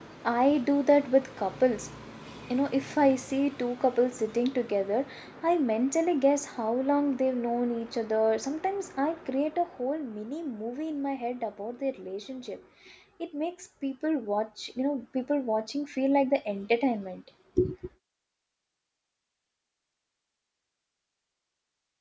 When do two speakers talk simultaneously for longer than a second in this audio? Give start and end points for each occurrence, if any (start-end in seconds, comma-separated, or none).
none